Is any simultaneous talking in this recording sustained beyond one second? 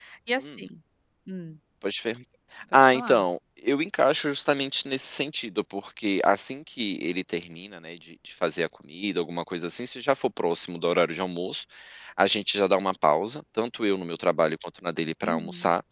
No

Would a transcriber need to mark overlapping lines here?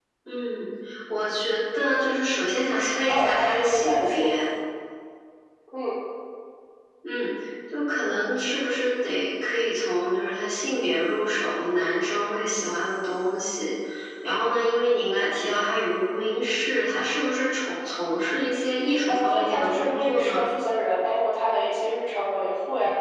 Yes, from 3.1 s

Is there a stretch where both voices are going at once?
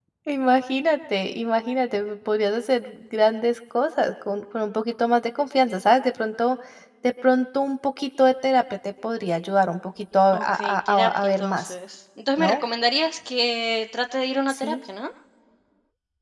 Yes, from 10.3 s

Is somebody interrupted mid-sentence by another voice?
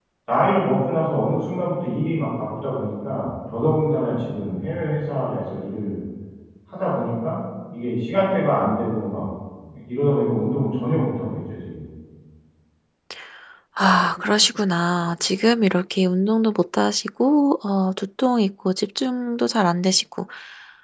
No

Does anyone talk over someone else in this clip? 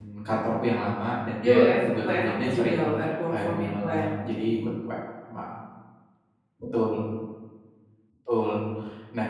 Yes, from 1.4 s

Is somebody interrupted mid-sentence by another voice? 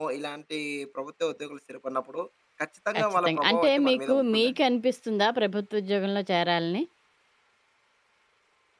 Yes, from 3.0 s

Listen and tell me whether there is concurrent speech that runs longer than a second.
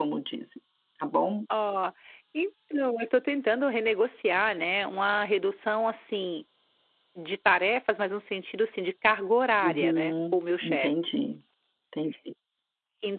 Yes, from 9.6 s

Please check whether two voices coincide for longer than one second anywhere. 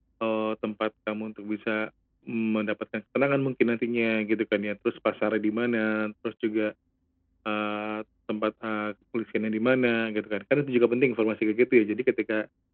No

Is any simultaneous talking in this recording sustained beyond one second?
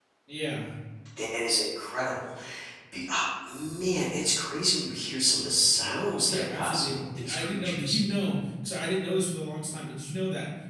Yes, from 6.2 s

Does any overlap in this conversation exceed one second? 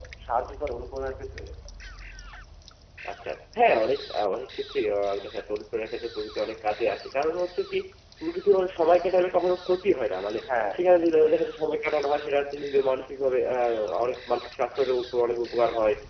No

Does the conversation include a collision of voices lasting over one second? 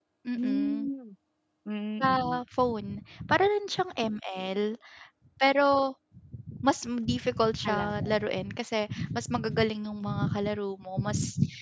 No

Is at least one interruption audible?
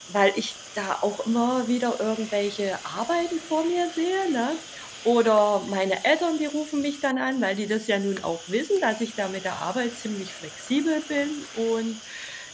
No

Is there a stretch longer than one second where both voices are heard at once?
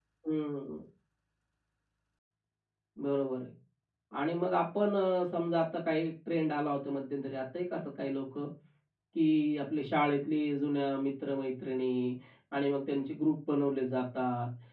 No

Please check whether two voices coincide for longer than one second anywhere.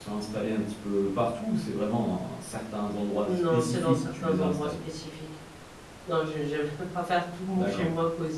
Yes, from 3.2 s

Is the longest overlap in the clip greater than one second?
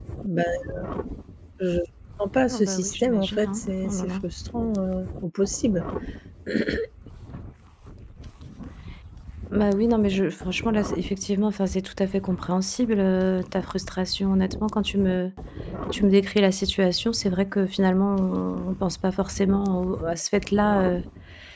Yes, from 2.5 s

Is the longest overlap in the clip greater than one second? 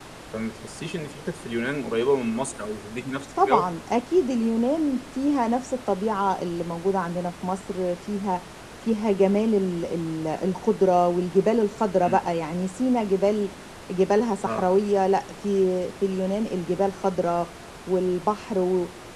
No

